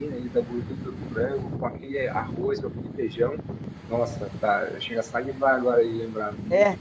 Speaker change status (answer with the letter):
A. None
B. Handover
B